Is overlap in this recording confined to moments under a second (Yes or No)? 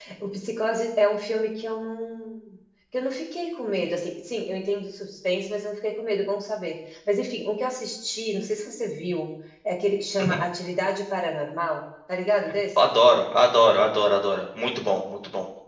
Yes